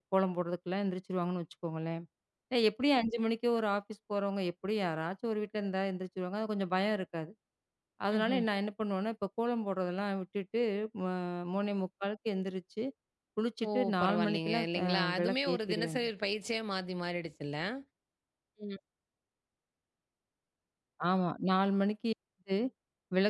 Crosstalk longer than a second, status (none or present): present